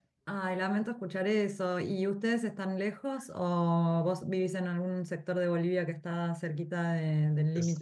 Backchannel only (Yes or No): No